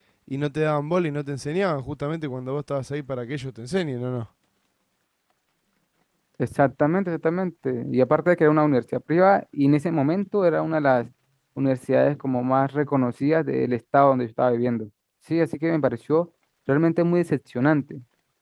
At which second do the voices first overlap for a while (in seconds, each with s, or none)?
none